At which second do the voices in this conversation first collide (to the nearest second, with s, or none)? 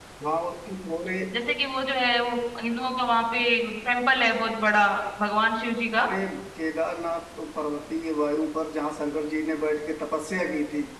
none